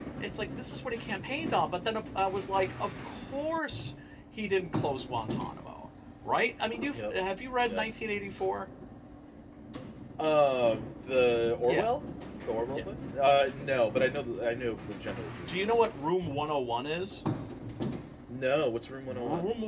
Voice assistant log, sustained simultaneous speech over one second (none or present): none